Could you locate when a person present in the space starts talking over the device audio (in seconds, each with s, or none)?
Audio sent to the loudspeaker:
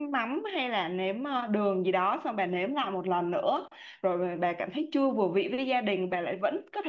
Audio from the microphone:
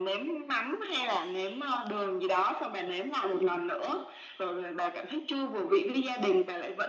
none